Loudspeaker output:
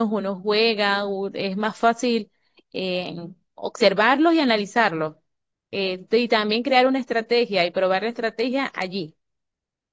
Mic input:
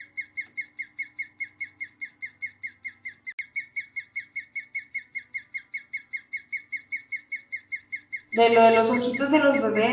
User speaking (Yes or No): Yes